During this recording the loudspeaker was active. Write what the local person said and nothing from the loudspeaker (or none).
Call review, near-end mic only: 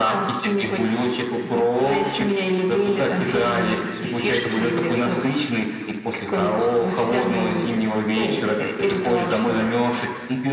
none